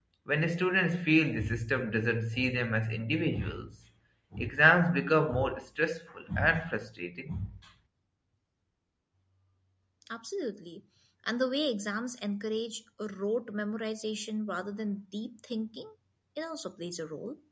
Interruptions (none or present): none